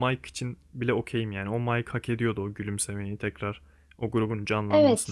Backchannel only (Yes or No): No